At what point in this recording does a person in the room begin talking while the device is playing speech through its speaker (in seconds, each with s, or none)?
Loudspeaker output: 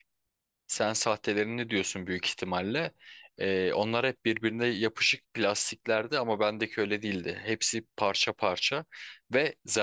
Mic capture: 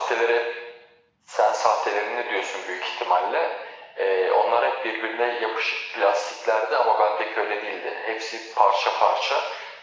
none